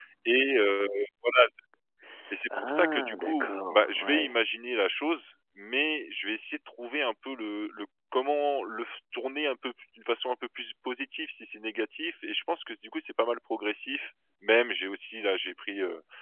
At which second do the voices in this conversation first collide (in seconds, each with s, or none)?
2.6 s